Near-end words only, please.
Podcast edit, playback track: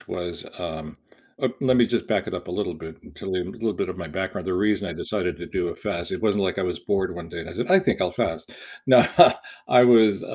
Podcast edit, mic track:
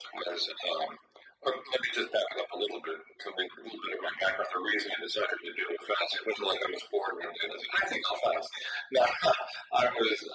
none

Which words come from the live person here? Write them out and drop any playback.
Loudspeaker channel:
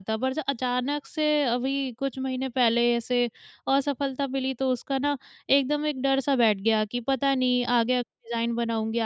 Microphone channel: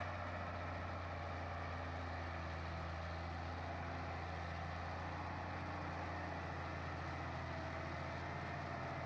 none

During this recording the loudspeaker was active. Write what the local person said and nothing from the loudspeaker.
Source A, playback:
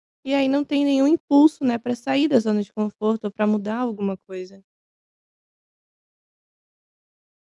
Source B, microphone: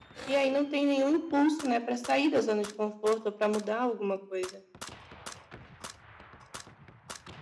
none

